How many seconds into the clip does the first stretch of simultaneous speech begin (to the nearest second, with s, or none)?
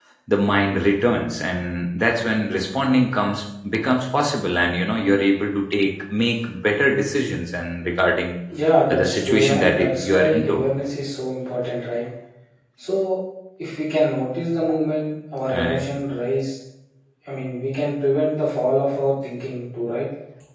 9 s